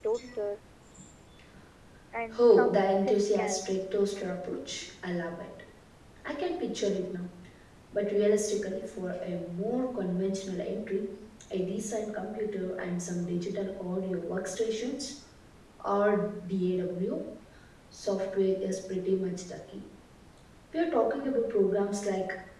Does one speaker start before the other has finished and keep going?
Yes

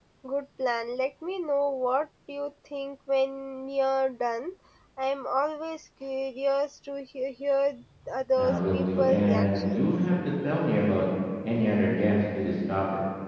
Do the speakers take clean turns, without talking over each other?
No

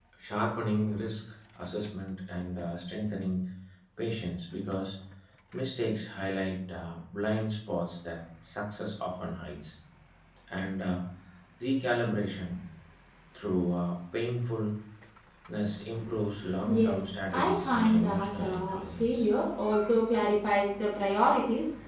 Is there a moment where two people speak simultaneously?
Yes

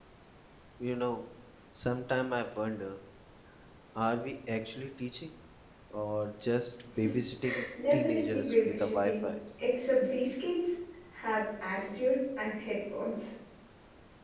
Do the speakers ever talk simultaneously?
Yes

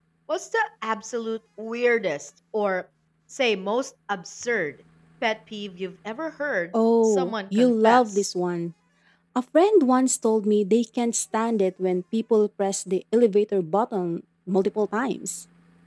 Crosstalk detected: Yes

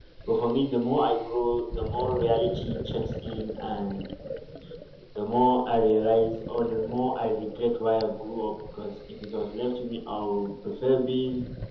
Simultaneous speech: No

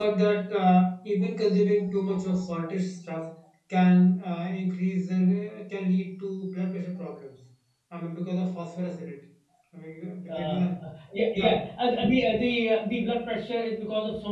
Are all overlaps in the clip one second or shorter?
Yes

